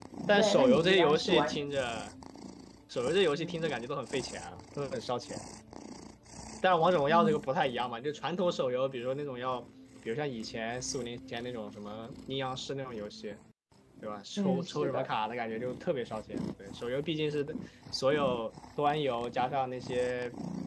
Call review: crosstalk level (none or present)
present